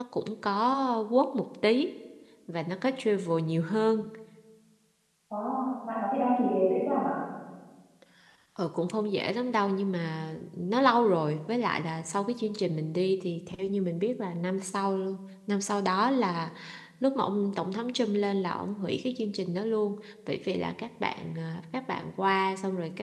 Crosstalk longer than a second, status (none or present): none